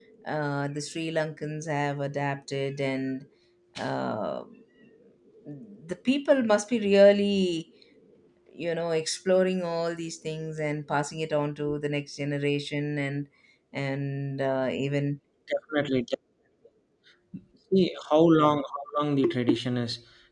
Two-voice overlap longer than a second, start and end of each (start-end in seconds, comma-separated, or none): none